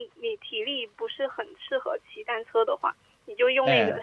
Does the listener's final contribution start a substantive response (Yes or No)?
No